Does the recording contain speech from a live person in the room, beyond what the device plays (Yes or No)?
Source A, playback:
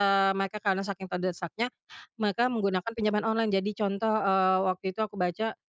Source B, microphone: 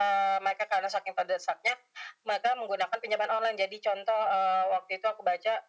No